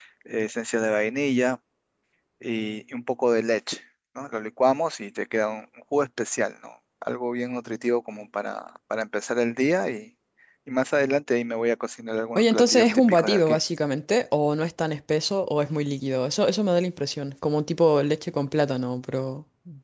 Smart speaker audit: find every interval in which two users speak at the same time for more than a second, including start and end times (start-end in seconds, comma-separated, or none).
12.4-13.6